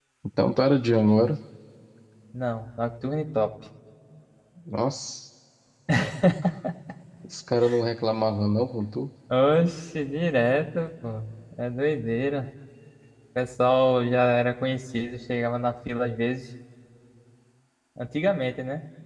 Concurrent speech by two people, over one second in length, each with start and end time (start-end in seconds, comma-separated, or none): none